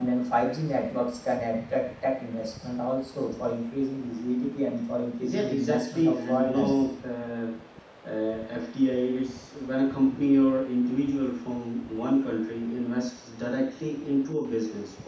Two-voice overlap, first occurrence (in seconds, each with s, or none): 5.2 s